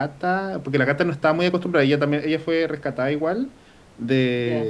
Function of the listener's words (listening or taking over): listening